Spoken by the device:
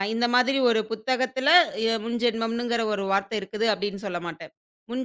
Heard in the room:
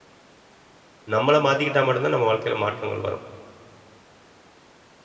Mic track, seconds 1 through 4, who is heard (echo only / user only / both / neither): user only